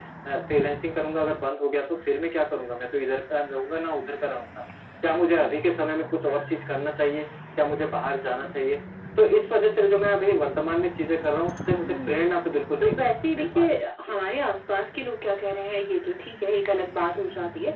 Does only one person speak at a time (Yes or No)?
No